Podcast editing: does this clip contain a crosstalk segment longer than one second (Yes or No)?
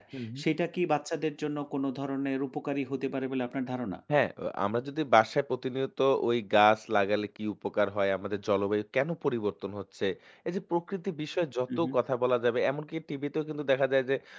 No